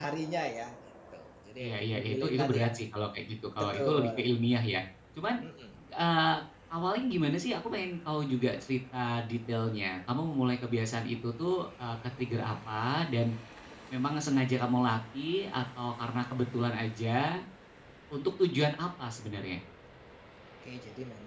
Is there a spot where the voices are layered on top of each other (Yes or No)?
Yes